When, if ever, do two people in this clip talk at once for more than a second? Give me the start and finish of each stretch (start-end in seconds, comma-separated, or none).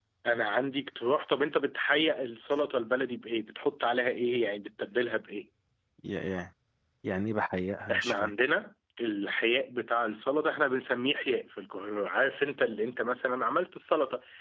none